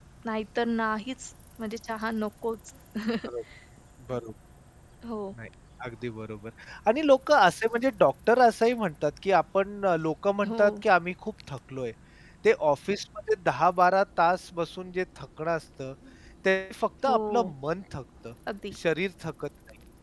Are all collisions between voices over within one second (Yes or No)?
Yes